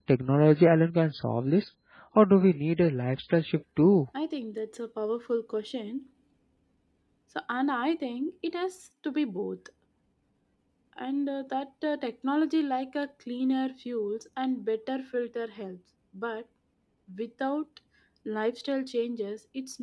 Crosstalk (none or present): none